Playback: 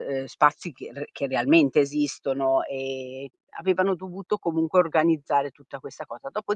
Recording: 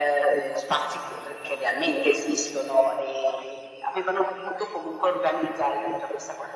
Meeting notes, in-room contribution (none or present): none